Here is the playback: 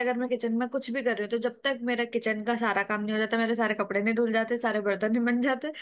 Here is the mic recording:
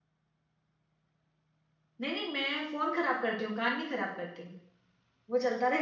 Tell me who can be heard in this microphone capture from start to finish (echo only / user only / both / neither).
user only